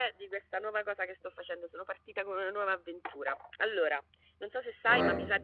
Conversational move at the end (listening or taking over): listening